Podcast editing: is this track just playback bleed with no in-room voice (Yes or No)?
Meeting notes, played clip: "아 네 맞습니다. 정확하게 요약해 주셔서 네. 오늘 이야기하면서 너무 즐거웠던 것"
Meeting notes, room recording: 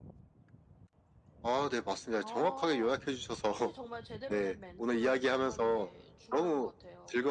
No